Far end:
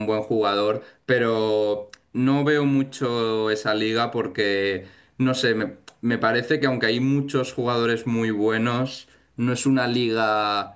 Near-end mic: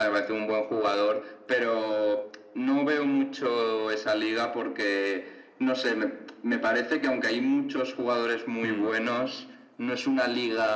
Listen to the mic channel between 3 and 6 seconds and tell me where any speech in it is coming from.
echo only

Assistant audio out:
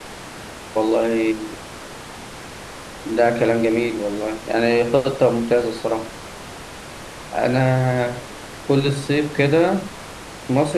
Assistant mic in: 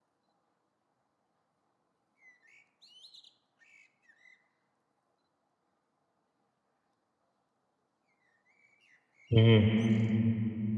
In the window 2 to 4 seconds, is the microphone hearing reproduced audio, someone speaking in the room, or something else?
neither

